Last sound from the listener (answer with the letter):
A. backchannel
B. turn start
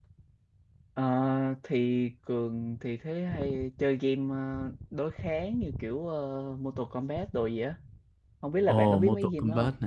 B